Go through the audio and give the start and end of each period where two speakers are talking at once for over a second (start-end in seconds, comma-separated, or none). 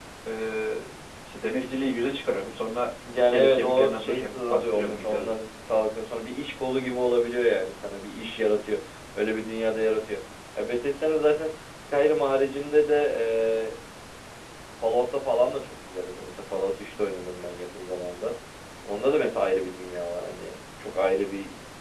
3.2-5.3